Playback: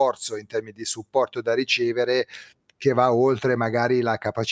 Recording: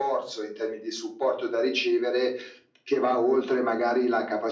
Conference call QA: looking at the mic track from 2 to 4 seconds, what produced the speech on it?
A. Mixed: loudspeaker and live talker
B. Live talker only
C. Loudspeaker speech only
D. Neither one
C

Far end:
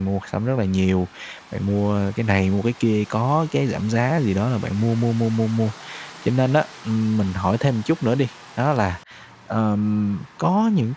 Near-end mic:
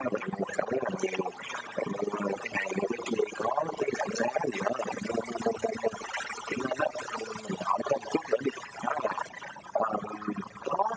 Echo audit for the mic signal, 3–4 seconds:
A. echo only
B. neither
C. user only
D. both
A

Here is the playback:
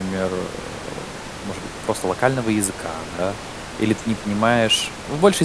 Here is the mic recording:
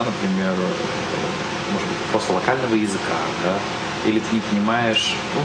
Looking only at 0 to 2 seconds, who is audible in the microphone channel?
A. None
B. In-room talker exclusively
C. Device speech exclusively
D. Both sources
C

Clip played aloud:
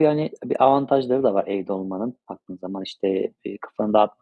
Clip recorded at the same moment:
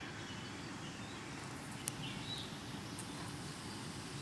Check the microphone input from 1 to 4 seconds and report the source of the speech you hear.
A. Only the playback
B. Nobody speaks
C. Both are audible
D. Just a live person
B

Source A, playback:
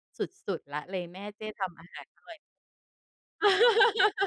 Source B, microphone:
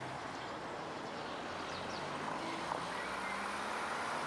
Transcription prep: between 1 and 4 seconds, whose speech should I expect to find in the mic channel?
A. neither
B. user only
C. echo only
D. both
A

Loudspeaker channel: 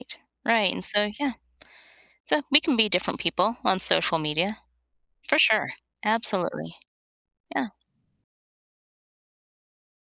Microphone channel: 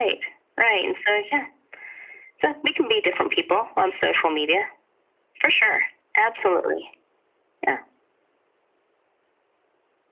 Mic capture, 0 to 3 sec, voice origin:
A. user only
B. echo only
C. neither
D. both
B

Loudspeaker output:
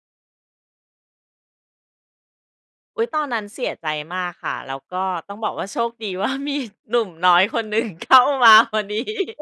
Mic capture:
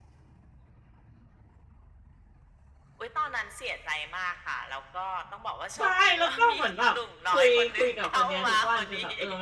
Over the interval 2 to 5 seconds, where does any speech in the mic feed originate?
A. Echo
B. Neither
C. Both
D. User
A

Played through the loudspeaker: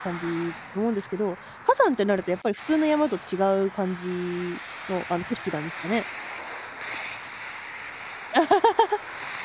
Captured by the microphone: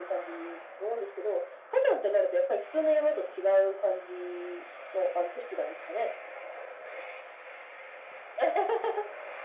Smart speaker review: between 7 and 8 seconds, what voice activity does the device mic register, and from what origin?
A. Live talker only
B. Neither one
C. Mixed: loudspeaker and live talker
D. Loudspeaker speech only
B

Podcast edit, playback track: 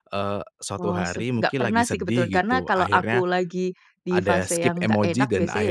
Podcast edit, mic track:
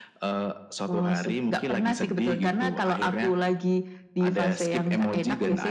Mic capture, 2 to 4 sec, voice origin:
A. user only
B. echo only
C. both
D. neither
B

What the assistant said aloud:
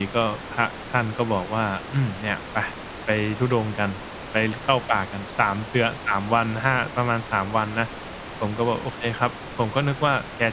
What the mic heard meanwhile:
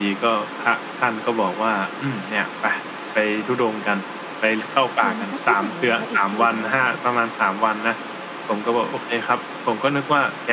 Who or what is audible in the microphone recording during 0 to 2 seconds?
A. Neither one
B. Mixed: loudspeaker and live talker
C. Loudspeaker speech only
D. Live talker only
C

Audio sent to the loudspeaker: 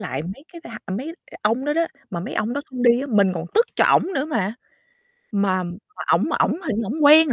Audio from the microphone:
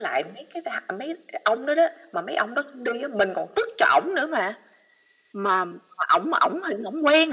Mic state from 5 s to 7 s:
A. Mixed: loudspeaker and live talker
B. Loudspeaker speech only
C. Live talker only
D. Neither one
B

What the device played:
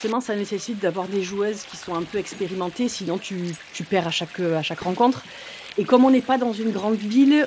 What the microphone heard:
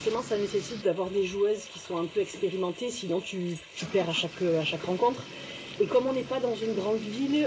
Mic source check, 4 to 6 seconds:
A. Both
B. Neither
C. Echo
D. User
C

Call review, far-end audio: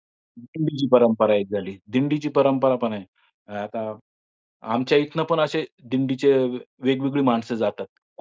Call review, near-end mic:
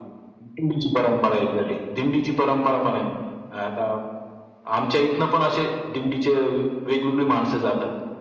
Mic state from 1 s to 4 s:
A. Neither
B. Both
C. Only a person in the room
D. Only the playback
D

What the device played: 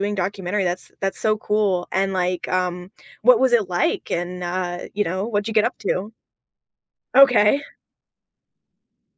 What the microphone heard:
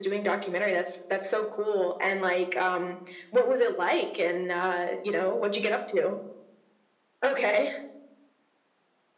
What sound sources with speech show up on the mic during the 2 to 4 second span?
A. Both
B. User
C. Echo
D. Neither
C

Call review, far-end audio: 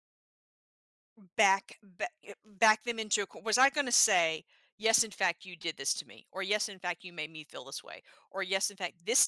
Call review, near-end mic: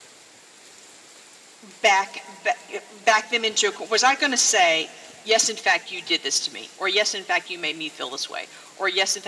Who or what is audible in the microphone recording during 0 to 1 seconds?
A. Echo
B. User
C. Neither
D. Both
C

